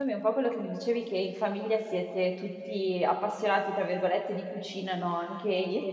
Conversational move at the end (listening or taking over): listening